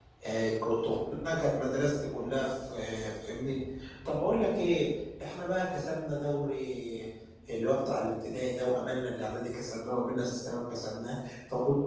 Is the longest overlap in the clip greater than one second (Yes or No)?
No